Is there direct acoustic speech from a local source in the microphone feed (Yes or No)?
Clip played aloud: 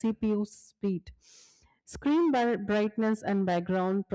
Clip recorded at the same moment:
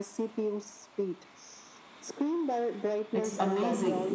Yes